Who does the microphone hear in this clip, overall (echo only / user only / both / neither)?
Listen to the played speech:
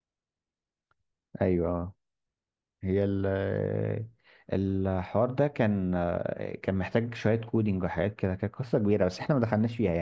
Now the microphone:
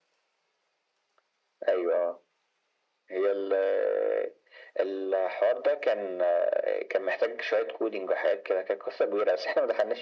echo only